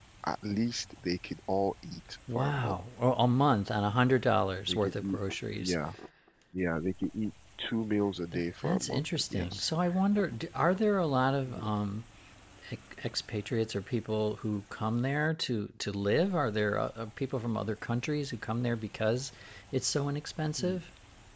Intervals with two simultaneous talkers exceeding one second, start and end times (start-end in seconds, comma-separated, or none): 8.3-9.7